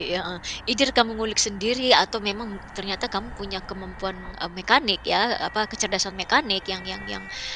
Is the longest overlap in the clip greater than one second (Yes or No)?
No